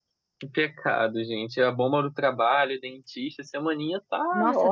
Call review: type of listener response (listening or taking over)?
taking over